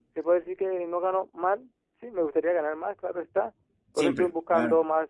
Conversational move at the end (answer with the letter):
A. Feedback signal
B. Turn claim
A